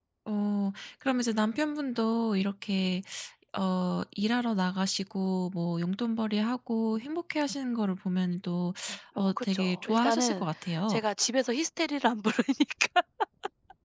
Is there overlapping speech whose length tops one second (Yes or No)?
Yes